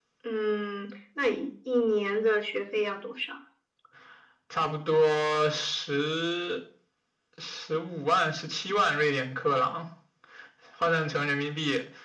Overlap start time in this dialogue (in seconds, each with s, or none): none